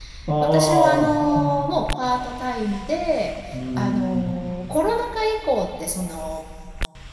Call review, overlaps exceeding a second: present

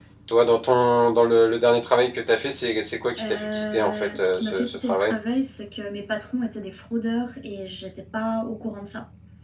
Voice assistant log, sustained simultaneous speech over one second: present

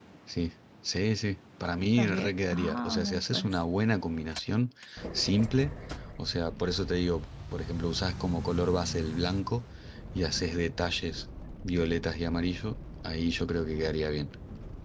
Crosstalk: present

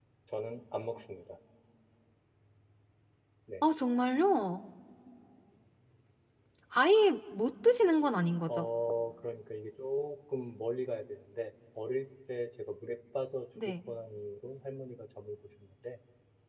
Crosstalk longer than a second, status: none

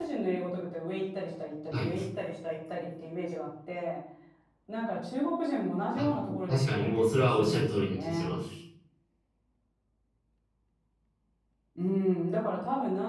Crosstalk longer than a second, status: present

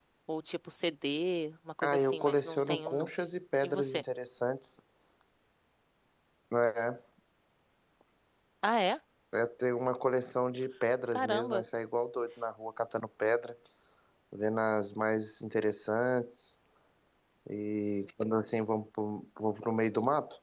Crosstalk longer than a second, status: present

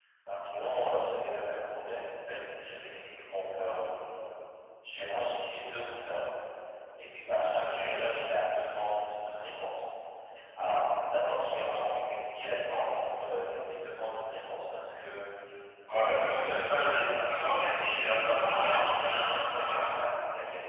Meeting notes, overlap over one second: present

